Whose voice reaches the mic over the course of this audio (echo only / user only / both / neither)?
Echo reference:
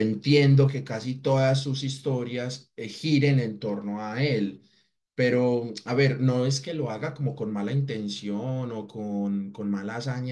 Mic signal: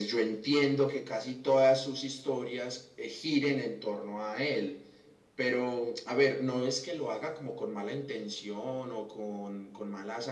echo only